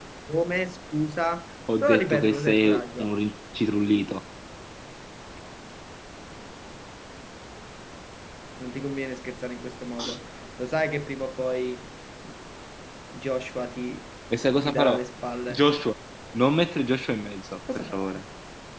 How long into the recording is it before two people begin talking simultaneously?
1.8 s

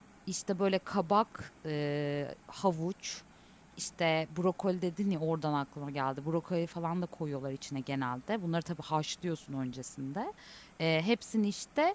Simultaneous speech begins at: none

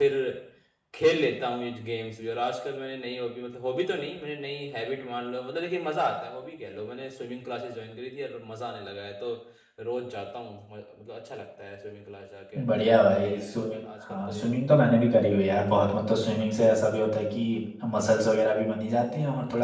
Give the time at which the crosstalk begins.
13.2 s

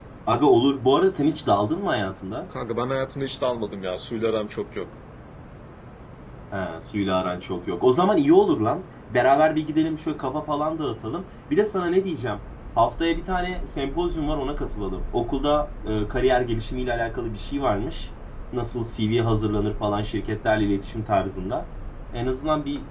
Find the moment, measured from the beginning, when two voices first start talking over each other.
none

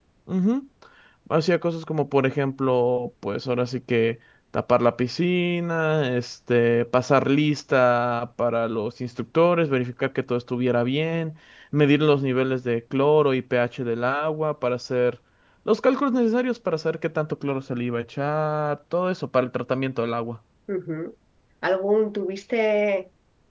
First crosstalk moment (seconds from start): none

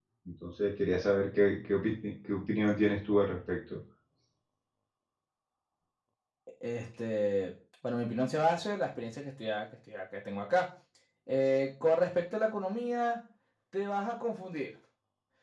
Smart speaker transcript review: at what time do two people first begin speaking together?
none

